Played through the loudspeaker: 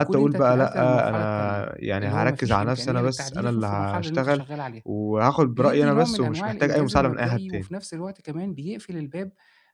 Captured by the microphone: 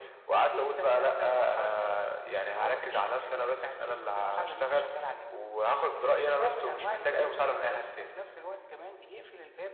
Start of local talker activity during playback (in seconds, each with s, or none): 7.0 s